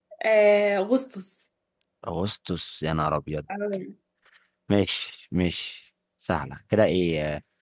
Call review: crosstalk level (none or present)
none